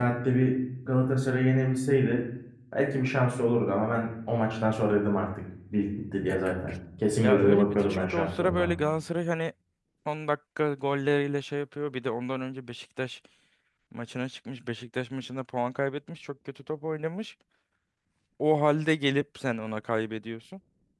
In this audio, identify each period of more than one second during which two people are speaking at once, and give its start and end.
7.1-8.7

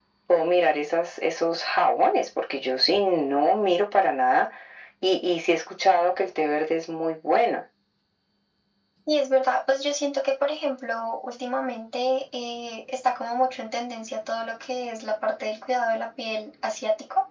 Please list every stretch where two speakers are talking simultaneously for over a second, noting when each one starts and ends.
none

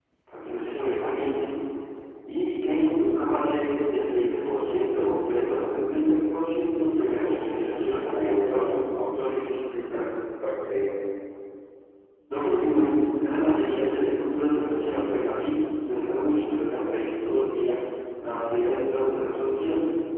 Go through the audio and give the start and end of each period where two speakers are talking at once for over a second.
7.1-8.7

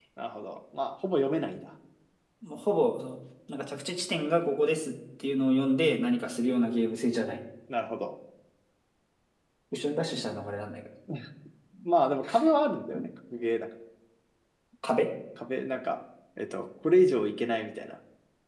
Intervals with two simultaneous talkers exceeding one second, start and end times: none

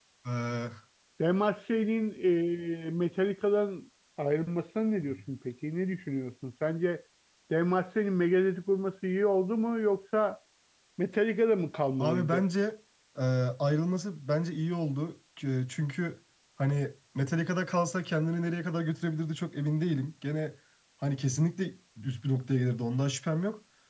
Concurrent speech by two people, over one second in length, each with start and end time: none

